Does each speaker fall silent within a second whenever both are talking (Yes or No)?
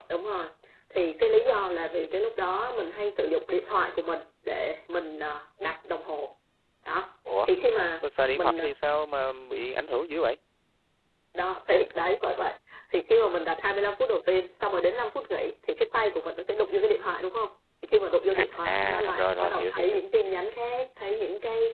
No